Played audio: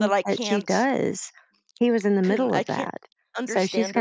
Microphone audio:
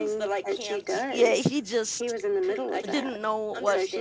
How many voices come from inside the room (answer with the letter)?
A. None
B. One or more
B